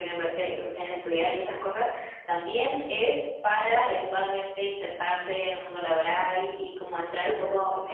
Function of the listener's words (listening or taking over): listening